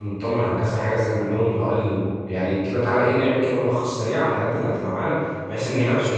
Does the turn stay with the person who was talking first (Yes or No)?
Yes